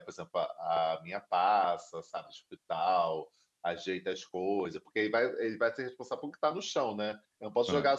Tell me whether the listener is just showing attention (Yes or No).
Yes